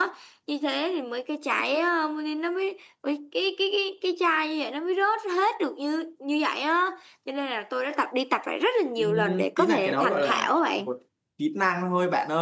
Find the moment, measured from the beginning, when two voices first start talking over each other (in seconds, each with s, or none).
9.0 s